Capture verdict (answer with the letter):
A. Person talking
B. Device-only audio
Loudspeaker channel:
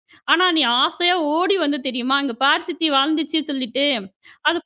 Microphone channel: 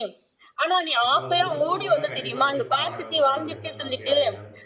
A